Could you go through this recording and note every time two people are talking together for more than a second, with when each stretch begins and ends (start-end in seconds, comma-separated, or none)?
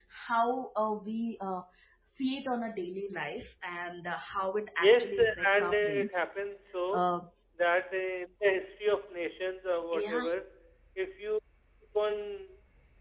4.8-6.1